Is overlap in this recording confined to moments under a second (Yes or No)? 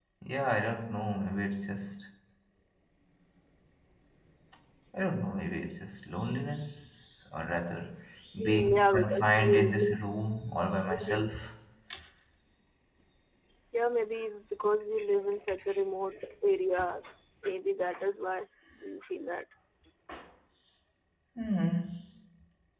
No